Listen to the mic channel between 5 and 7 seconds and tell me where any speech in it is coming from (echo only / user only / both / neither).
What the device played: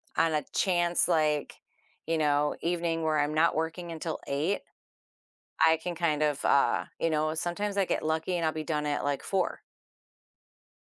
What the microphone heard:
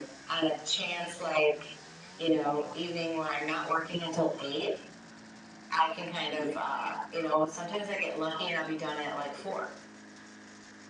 echo only